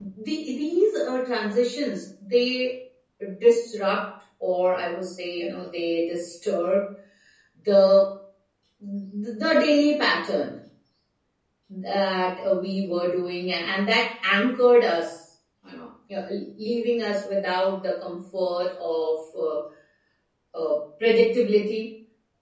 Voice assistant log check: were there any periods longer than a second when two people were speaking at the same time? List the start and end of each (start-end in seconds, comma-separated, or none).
none